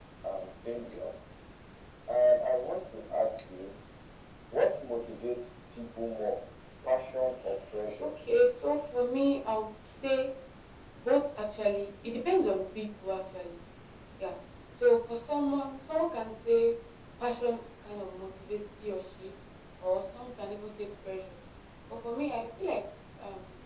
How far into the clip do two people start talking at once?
none

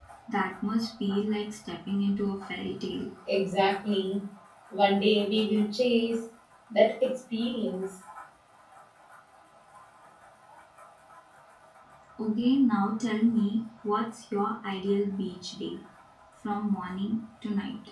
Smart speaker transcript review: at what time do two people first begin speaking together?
none

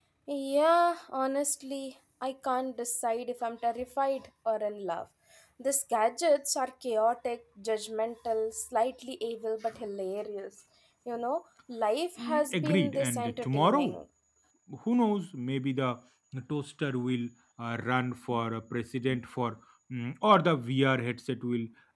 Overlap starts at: 12.2 s

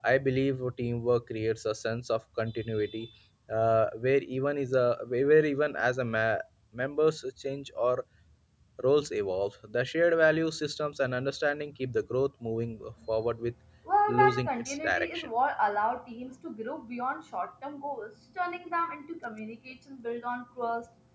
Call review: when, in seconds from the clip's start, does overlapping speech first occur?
14.1 s

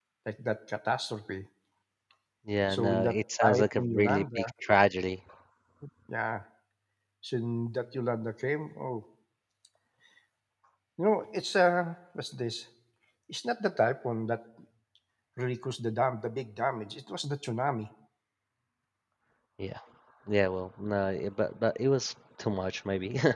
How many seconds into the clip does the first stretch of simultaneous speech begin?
2.7 s

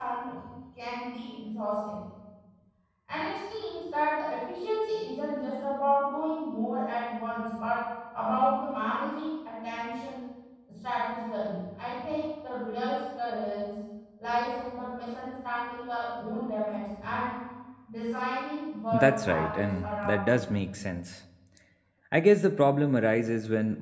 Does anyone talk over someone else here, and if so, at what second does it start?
18.9 s

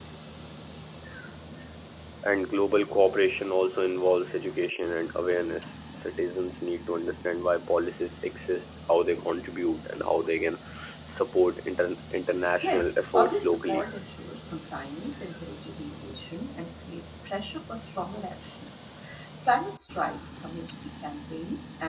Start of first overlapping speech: 12.6 s

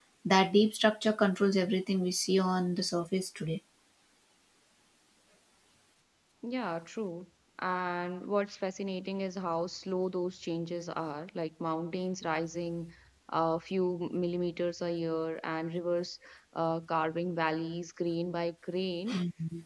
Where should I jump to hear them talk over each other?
none

